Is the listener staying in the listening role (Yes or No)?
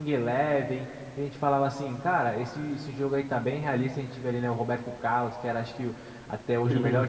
Yes